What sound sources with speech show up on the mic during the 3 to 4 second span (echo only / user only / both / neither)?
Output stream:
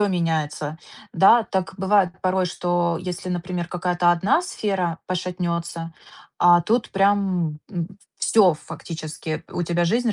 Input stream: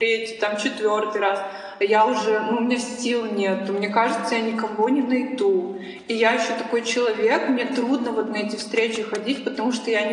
user only